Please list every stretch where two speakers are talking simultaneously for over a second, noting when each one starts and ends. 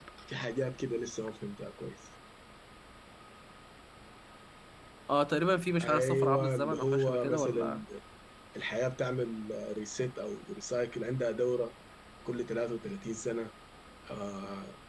5.8-7.8

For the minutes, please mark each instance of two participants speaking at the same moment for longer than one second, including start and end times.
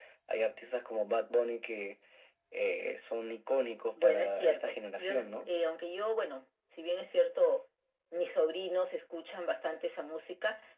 4.0-5.5

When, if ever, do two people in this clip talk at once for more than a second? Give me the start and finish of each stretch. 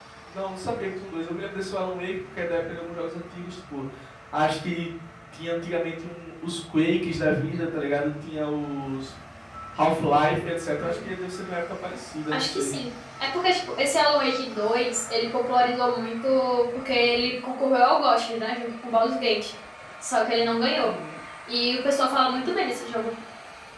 none

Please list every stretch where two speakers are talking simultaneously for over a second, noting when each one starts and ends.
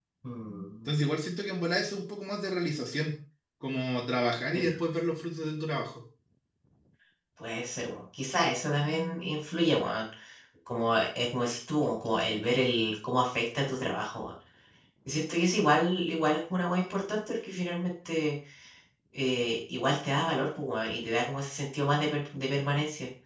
none

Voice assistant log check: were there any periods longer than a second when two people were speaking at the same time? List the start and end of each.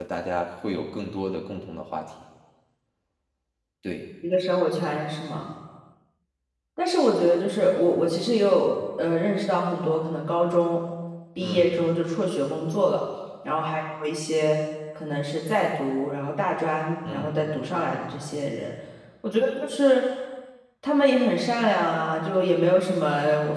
none

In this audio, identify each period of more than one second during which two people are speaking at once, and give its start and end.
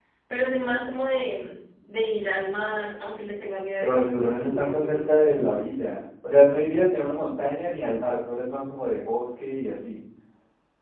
3.8-5.1

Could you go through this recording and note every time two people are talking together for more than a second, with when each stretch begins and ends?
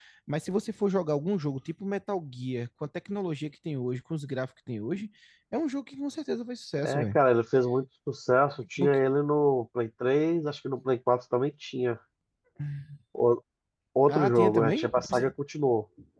14.1-15.3

